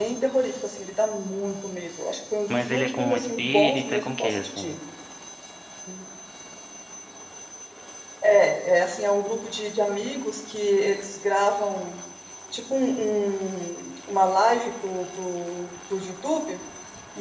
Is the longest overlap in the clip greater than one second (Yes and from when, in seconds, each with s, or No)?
Yes, from 2.5 s